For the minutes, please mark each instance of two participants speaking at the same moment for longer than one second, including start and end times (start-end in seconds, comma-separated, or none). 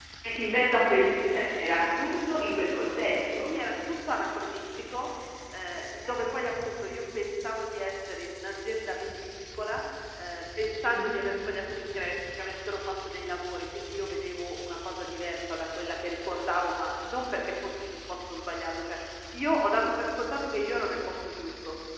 none